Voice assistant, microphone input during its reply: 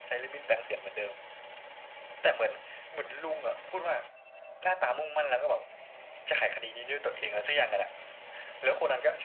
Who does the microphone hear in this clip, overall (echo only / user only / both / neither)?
echo only